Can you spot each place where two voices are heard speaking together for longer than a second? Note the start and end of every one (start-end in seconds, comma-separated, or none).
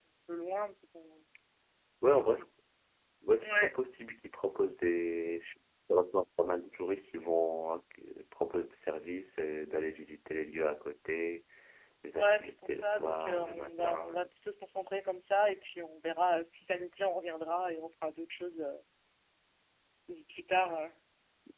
12.2-14.3